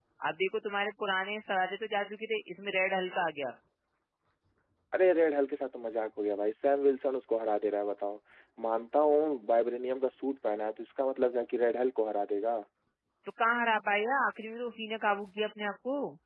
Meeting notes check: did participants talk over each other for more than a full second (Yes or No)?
No